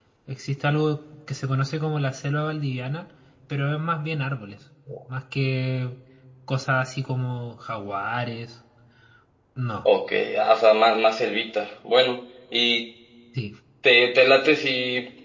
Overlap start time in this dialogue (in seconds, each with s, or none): none